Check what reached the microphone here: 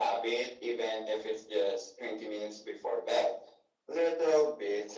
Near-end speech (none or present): none